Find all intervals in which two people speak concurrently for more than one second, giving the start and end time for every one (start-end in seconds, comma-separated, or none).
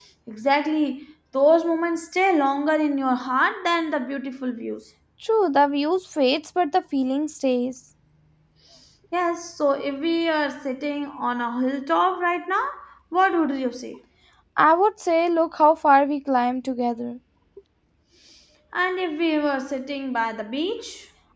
none